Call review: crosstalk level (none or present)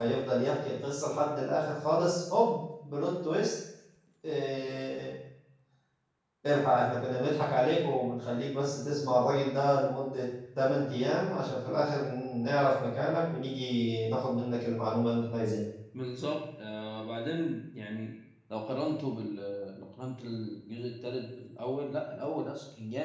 none